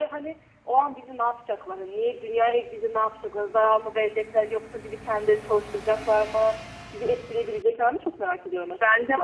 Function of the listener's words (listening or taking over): taking over